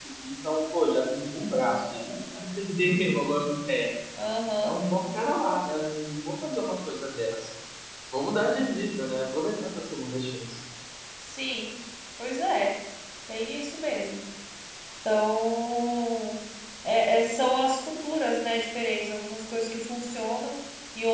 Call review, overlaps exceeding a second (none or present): none